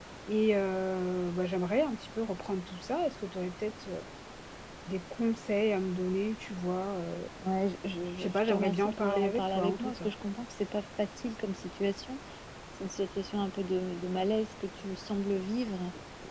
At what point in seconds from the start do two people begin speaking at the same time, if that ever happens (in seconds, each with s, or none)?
8.2 s